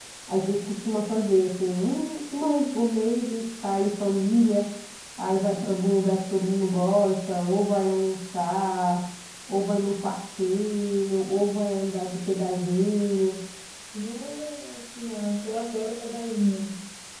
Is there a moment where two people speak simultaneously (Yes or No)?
No